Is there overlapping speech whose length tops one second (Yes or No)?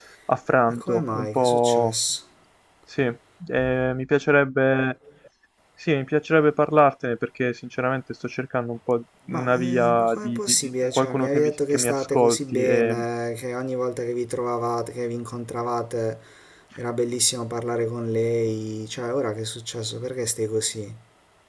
Yes